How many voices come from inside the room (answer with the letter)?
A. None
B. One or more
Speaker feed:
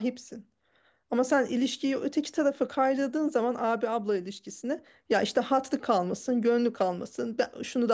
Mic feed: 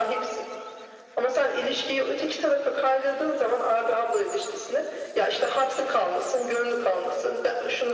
A